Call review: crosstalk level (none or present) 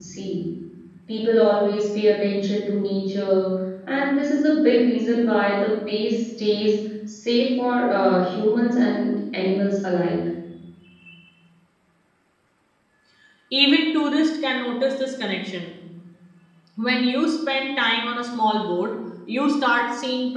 none